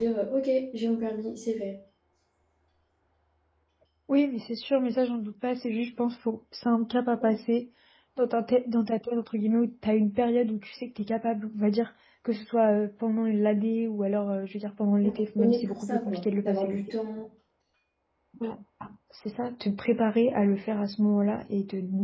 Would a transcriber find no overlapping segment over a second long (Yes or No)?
No